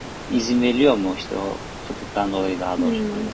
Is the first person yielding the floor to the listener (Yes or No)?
Yes